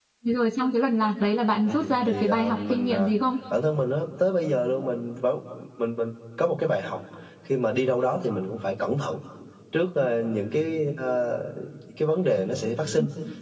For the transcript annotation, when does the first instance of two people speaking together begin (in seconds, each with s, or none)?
1.6 s